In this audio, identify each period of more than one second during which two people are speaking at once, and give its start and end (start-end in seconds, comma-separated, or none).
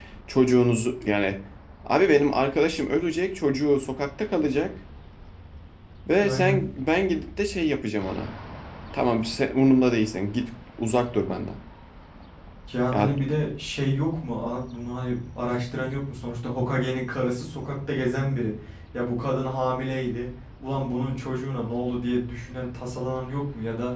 none